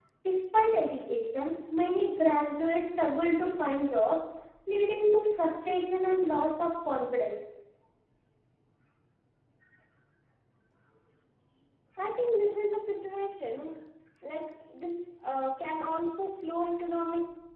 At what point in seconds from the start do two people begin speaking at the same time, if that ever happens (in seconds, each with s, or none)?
none